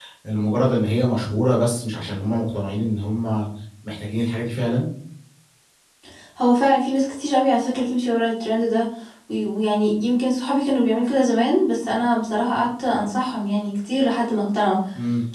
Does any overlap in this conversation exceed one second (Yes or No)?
No